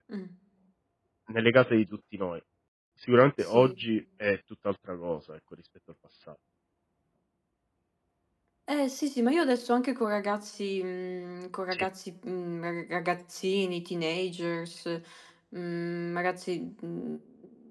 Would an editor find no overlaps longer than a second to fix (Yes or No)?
Yes